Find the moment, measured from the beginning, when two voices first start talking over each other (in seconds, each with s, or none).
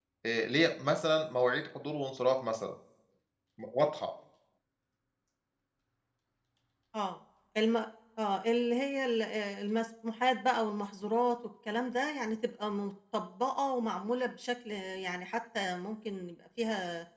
none